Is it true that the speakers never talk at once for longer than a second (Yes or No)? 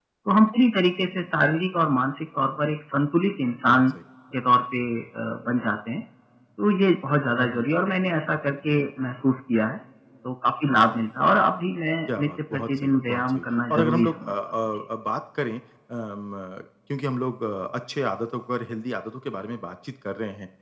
No